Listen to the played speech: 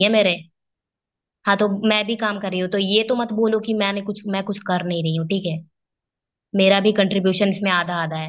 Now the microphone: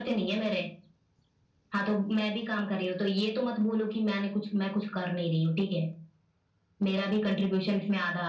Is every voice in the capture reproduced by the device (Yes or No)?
Yes